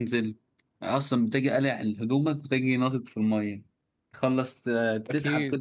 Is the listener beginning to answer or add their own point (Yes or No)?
No